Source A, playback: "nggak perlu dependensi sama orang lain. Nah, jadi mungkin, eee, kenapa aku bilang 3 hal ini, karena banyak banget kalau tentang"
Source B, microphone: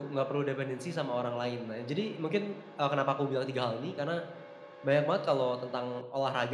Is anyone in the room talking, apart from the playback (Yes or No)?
No